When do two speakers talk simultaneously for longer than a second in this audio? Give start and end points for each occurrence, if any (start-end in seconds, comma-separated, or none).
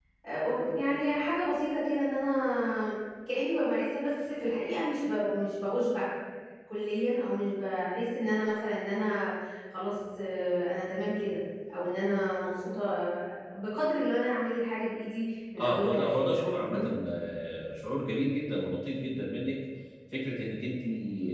15.6-16.8